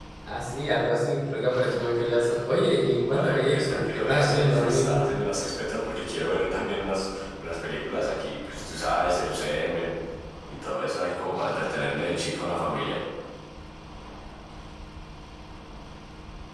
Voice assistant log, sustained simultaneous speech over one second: present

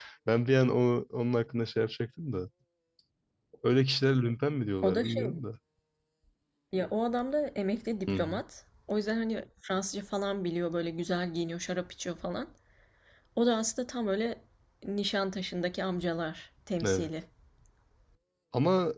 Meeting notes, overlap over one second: none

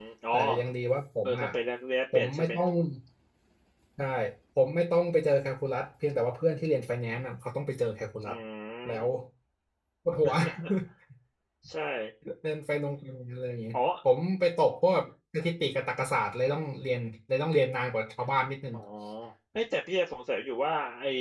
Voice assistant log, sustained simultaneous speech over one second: none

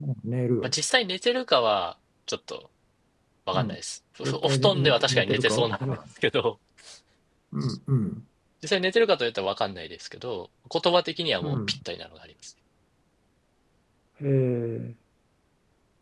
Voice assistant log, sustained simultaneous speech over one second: present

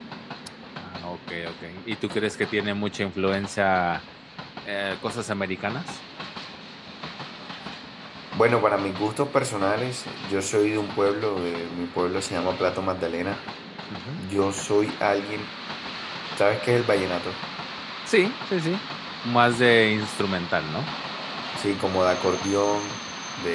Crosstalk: none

